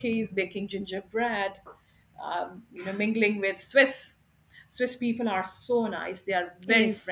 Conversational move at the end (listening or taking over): taking over